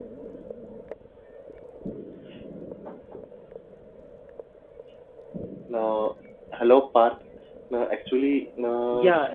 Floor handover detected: Yes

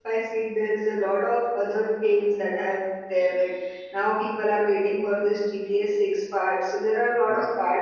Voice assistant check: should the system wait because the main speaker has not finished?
Yes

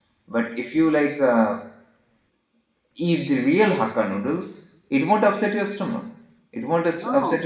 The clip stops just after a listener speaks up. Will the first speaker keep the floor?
Yes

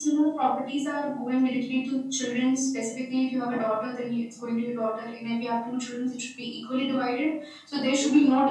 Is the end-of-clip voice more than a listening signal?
No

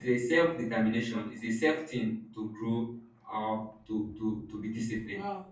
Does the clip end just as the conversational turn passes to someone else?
Yes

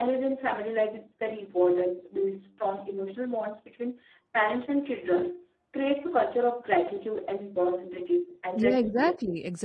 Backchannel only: No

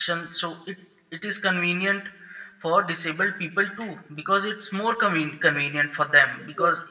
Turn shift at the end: No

